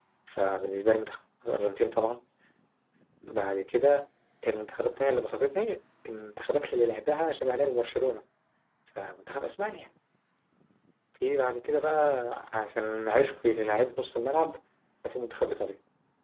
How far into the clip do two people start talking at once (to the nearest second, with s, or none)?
none